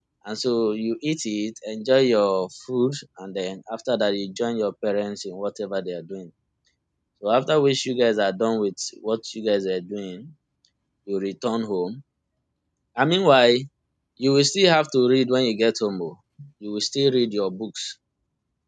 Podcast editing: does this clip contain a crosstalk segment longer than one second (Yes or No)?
No